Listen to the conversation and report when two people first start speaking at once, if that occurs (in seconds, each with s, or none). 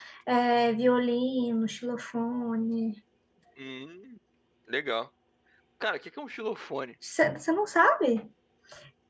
none